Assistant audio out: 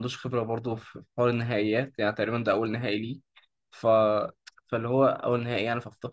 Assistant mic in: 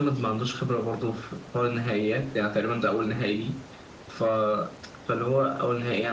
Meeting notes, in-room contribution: none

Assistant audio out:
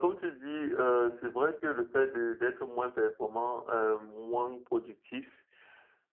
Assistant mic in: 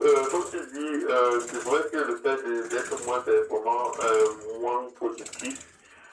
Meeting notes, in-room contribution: none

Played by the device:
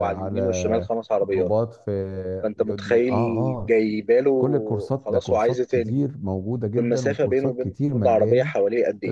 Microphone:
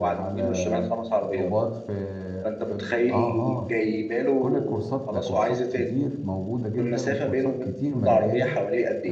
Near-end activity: none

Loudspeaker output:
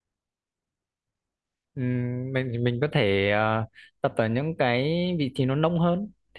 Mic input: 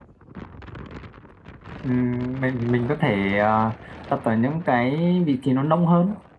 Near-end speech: none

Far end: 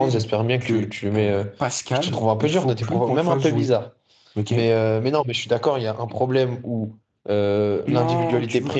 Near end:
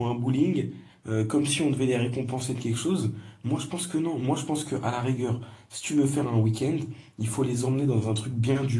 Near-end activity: present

